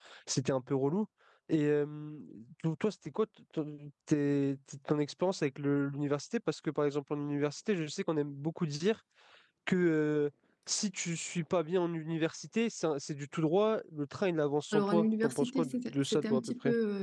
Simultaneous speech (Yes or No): Yes